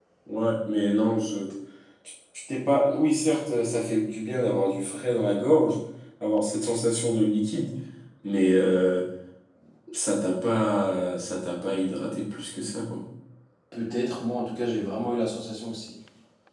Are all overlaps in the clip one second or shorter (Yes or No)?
Yes